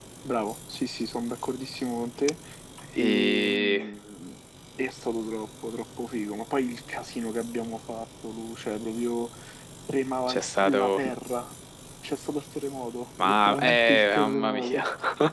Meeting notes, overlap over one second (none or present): present